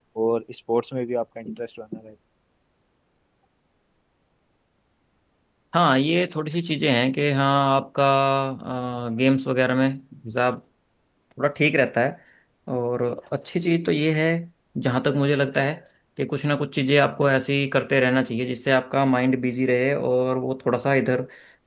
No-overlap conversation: Yes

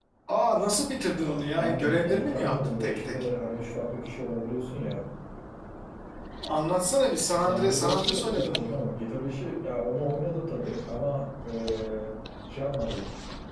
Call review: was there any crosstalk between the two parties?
Yes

